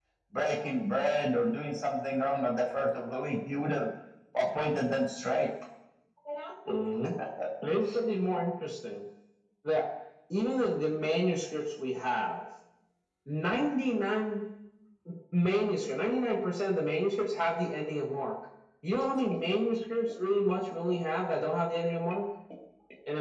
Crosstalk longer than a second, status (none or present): none